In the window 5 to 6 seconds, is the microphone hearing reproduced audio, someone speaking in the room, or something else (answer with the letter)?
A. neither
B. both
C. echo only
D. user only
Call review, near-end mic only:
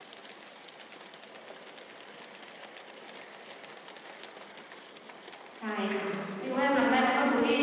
D